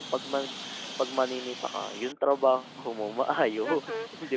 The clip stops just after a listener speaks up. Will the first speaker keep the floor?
No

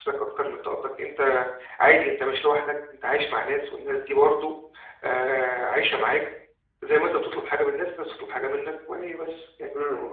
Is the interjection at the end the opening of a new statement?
Yes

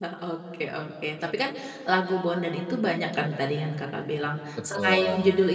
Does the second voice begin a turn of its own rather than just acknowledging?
No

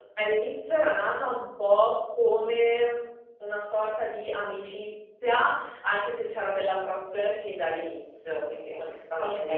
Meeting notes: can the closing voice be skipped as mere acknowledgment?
No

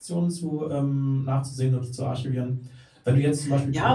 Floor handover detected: Yes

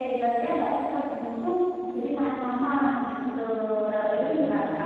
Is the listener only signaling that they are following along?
No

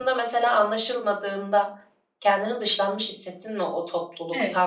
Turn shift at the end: Yes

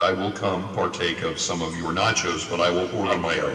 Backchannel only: No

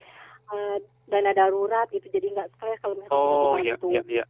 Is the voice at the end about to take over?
Yes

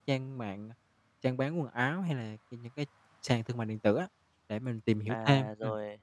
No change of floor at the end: No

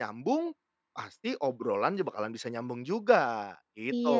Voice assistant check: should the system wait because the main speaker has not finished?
No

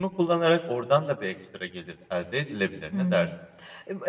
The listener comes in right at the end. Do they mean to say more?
Yes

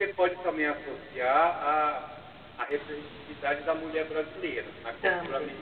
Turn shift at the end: No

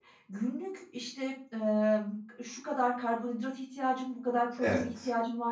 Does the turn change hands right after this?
No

